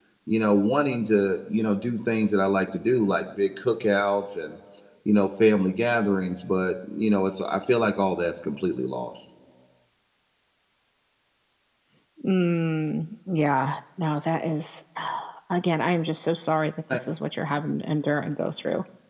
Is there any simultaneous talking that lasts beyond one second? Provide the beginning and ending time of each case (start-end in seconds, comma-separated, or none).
none